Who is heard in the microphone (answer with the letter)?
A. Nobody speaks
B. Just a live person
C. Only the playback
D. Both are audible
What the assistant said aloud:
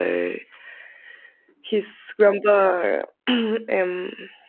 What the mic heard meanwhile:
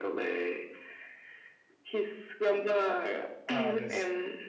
D